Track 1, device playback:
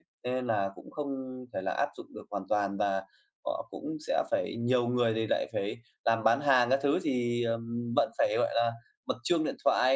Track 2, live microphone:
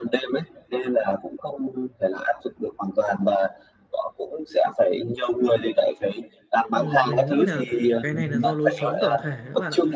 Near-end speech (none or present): present